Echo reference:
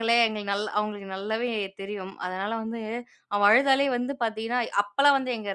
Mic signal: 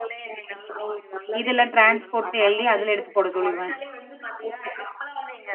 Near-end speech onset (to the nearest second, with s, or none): 1 s